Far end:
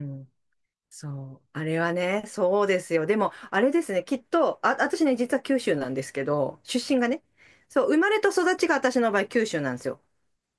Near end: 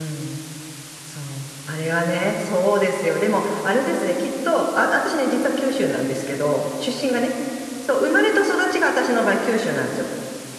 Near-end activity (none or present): none